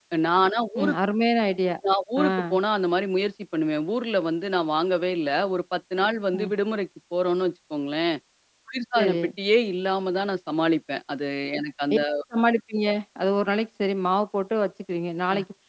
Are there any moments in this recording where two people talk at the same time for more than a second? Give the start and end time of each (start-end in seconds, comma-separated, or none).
none